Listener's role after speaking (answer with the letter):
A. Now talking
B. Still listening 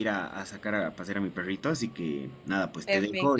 A